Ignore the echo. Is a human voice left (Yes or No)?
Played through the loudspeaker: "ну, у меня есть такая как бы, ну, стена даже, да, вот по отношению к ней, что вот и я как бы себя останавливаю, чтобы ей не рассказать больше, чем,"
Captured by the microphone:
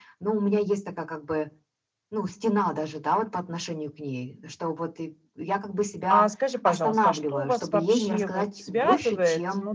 Yes